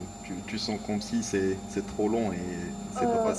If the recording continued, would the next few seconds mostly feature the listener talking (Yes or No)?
No